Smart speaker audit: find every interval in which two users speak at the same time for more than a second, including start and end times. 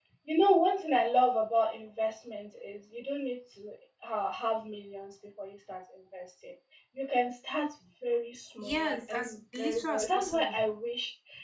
8.6-10.6

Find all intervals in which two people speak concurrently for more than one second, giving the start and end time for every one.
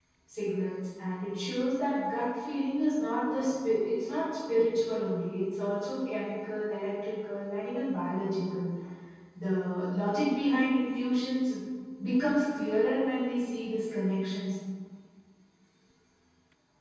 none

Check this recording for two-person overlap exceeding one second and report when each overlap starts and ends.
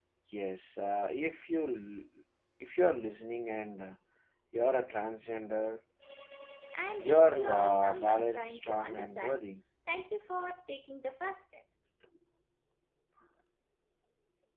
7.0-9.4

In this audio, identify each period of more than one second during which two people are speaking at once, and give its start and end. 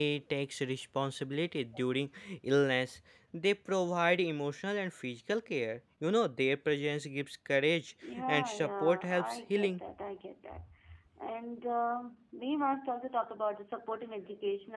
8.2-9.8

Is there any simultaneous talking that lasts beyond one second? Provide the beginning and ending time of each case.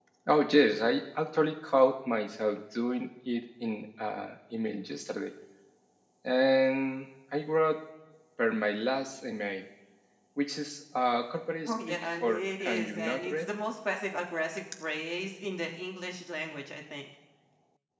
11.6-13.5

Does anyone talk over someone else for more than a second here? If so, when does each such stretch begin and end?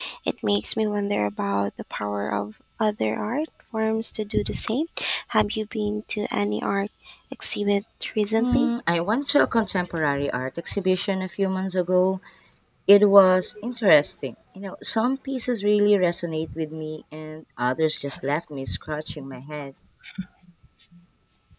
none

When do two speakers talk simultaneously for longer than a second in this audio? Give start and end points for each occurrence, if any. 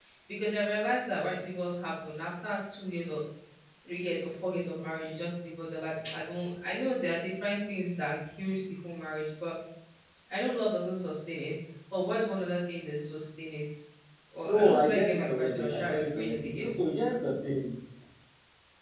14.4-16.7

